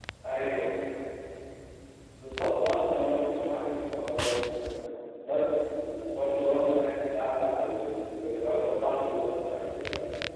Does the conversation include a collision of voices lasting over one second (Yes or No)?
No